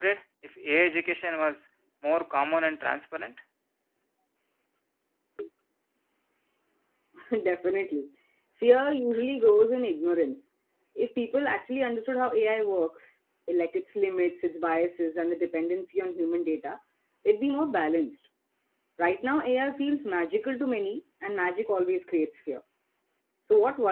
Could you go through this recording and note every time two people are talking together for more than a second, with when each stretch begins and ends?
none

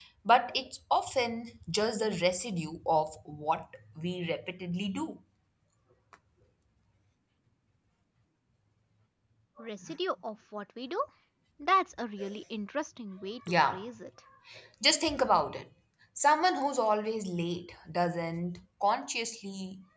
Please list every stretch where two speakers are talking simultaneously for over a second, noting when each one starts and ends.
none

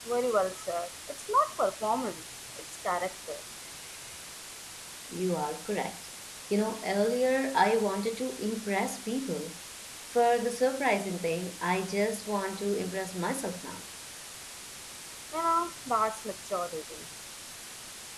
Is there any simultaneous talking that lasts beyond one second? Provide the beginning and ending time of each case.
none

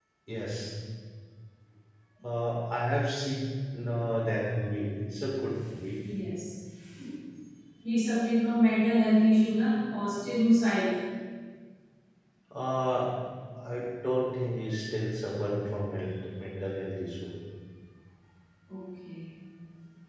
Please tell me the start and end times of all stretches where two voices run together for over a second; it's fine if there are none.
none

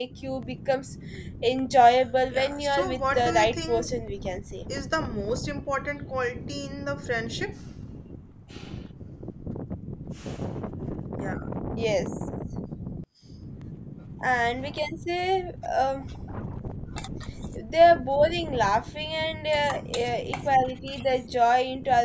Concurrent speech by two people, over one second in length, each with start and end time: 2.3-3.9

